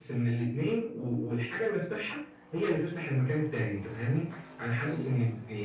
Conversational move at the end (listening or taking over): listening